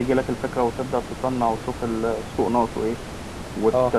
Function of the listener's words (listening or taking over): listening